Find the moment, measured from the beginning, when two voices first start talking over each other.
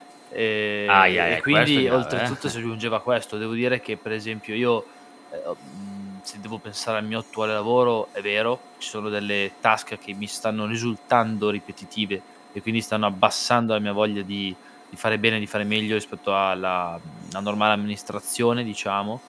0.9 s

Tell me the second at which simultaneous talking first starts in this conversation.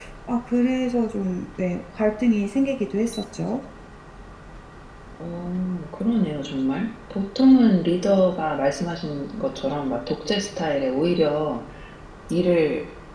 none

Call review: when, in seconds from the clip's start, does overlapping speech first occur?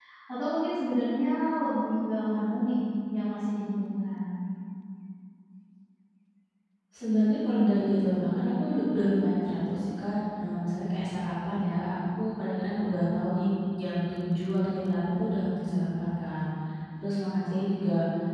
none

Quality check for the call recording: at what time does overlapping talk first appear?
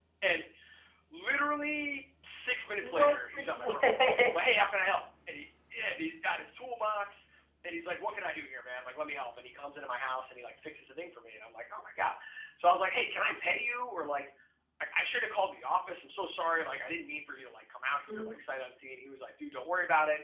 2.8 s

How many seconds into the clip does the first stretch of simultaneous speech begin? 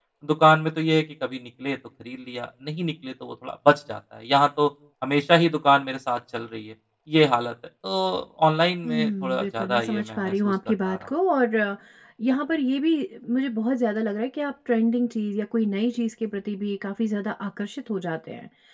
8.8 s

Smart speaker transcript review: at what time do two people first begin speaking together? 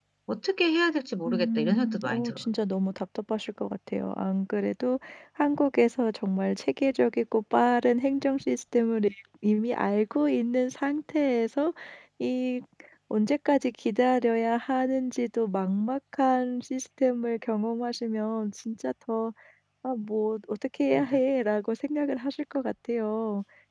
1.2 s

